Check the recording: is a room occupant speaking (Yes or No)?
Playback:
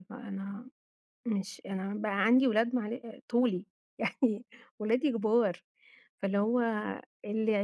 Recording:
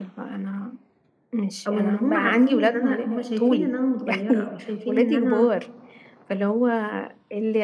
Yes